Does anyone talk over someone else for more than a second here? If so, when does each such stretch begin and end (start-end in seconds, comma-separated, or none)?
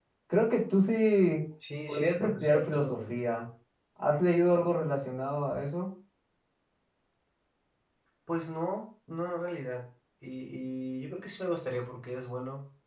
1.9-3.1